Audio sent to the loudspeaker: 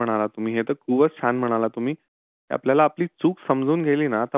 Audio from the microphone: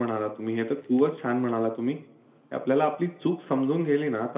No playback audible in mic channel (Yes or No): No